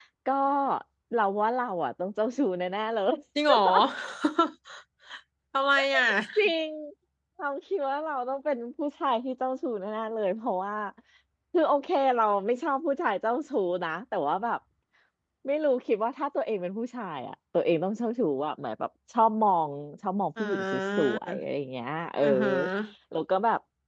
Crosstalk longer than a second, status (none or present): none